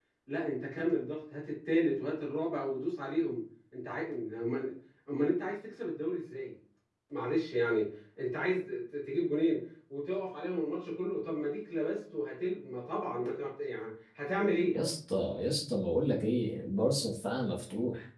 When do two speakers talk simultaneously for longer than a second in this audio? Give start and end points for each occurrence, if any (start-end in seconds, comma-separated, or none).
none